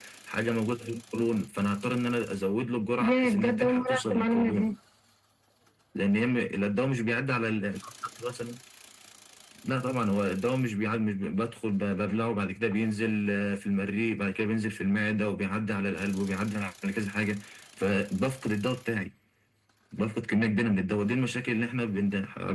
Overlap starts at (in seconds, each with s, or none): 3.0 s